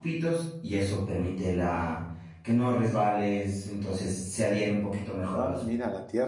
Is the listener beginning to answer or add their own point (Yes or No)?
Yes